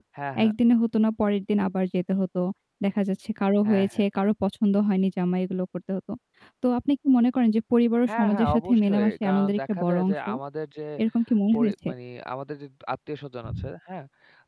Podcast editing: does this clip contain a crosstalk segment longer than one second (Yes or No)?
Yes